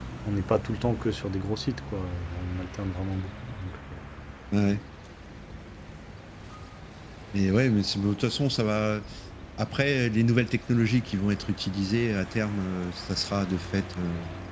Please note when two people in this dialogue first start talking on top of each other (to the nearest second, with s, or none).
none